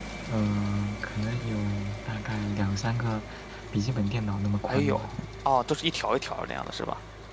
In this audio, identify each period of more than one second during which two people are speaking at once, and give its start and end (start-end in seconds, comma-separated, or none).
none